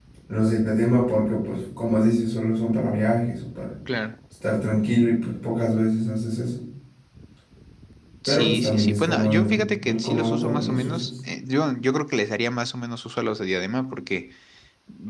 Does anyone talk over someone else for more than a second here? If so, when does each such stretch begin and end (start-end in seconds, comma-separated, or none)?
8.3-11.1